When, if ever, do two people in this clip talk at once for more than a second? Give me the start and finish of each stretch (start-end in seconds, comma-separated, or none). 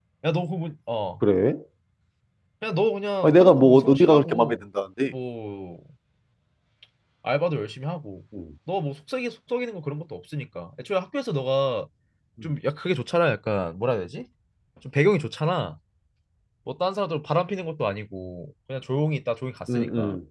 3.2-4.6